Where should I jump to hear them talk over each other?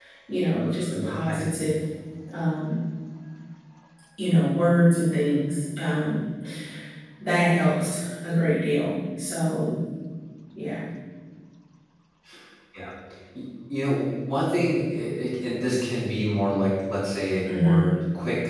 1 s

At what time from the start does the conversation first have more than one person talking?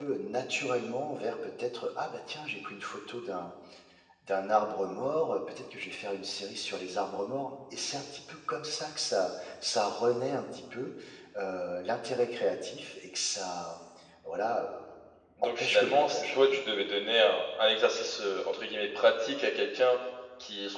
15 s

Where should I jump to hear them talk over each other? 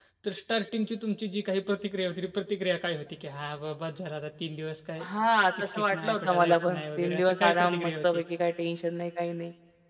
6 s

